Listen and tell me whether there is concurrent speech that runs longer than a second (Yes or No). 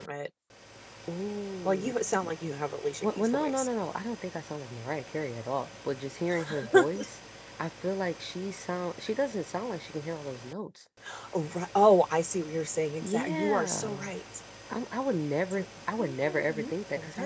Yes